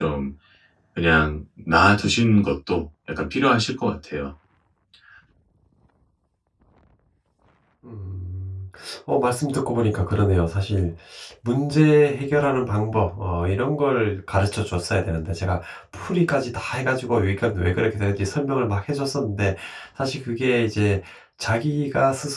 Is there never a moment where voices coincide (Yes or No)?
Yes